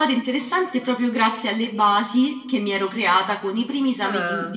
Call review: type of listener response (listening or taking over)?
listening